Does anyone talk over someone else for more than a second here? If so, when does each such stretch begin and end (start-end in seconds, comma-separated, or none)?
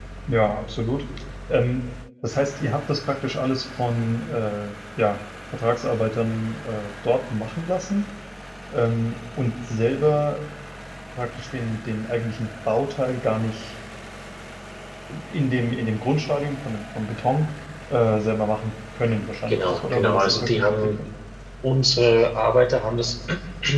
19.5-20.9